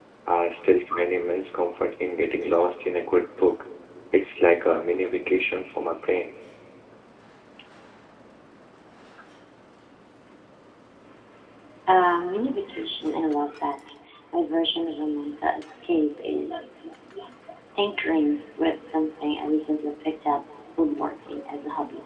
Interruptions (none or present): none